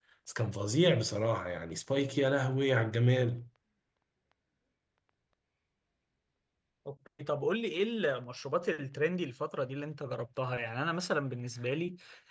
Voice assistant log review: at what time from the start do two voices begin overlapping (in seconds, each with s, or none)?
none